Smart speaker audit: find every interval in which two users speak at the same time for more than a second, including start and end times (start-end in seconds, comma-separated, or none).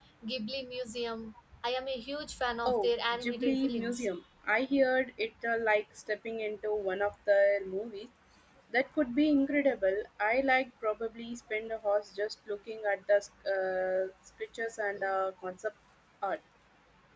2.6-4.1